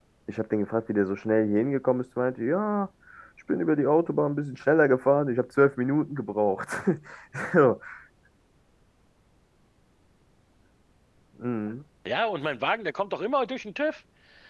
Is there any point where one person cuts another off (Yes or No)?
No